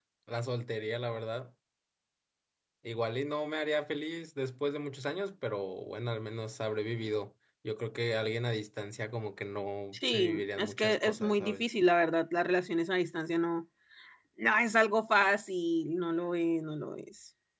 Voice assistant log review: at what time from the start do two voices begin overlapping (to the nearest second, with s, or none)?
10 s